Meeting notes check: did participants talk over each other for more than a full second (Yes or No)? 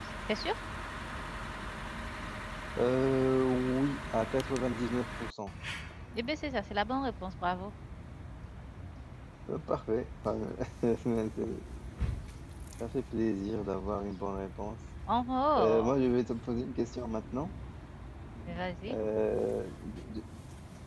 No